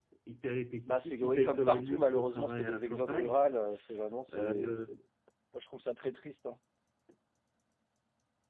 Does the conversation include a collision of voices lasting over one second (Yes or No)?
Yes